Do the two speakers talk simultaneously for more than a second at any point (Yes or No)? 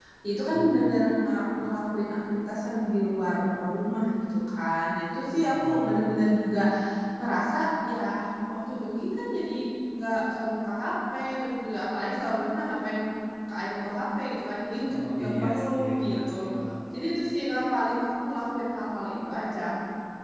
Yes